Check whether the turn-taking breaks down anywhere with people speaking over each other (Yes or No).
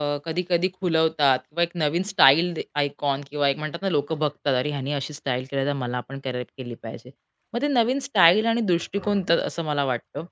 No